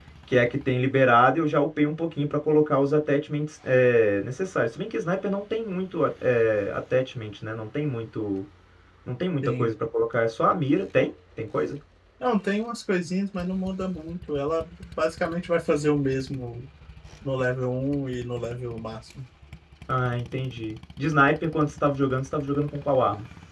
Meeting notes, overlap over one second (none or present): none